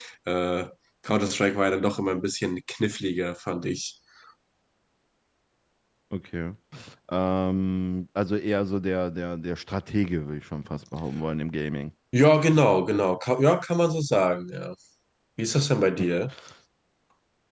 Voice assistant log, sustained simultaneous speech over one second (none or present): none